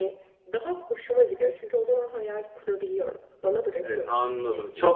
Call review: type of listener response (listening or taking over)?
taking over